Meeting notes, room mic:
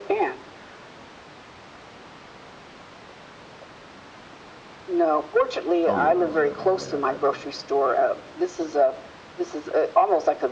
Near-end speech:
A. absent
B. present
B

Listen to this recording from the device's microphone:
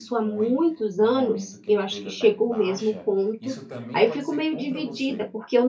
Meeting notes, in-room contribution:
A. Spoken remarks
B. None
A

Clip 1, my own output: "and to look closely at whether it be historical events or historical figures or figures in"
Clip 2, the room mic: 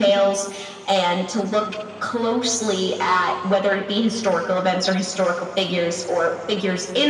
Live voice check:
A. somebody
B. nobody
B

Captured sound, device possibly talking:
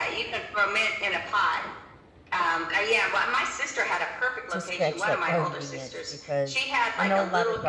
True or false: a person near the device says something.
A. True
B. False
A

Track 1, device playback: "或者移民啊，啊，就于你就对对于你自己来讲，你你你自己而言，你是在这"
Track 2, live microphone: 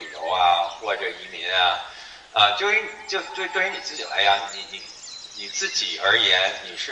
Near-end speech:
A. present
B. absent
B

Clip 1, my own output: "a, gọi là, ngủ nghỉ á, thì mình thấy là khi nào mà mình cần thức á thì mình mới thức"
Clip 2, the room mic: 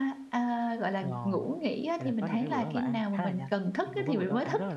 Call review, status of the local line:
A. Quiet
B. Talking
B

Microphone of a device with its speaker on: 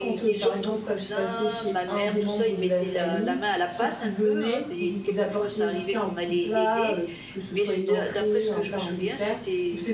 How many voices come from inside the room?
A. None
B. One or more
B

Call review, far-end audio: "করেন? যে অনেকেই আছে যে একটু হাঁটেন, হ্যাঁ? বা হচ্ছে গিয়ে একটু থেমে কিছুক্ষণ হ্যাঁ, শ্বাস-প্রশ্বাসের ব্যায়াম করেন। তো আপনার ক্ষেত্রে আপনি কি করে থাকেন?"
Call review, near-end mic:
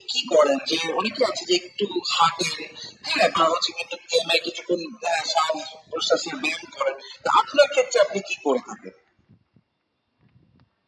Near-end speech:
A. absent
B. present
A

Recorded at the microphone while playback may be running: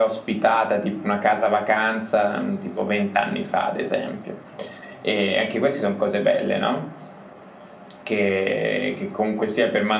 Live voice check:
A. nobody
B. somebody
A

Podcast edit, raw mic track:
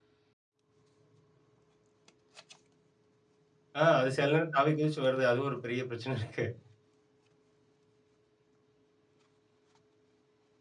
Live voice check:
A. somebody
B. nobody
A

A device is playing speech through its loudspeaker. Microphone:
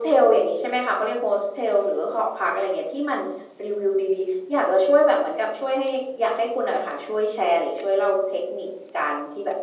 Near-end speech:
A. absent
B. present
A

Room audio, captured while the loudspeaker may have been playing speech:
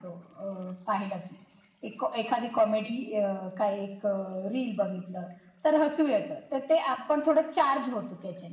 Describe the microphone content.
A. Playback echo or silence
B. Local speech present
A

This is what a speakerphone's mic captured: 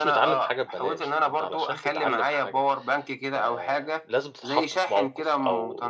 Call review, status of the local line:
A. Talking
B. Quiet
A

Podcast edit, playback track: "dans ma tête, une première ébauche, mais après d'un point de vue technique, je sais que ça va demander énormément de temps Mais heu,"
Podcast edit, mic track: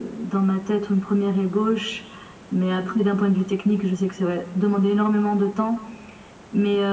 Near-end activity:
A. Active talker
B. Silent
B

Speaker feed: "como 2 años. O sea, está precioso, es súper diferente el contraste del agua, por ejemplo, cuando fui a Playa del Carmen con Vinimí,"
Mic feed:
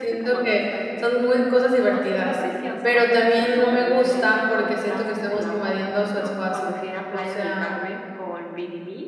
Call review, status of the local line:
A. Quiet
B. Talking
B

